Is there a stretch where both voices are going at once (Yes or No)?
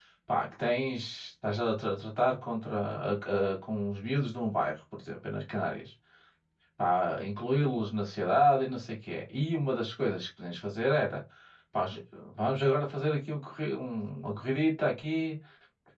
No